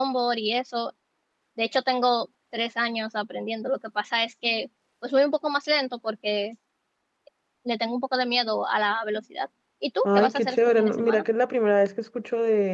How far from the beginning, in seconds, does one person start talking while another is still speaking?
10 s

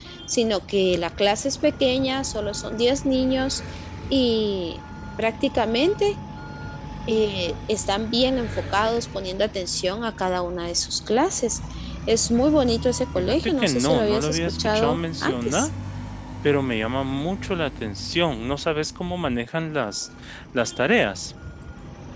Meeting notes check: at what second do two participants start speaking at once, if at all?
13 s

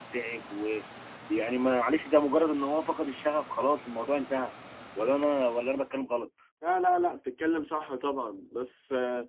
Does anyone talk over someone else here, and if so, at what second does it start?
none

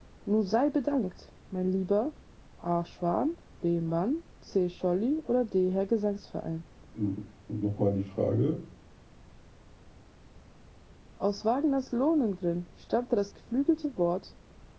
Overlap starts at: none

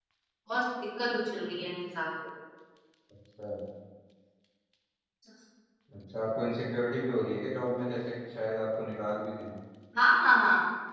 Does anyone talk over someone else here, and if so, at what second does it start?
none

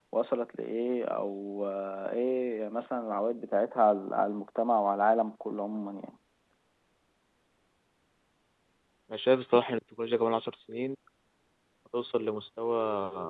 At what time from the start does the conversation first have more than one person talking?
none

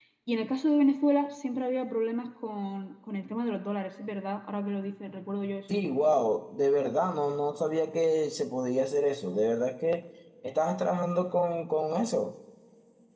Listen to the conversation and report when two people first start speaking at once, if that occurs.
none

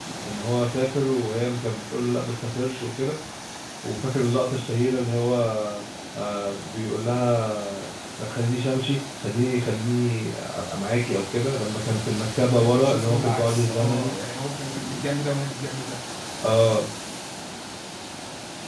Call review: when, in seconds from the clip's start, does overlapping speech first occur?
12 s

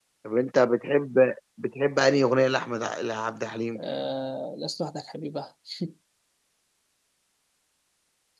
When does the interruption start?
none

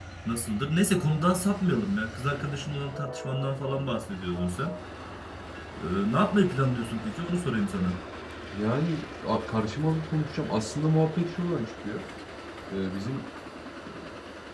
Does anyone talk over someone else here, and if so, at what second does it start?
none

